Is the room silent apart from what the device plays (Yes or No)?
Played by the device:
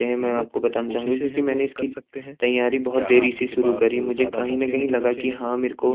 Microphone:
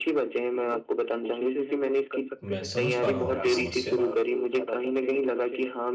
No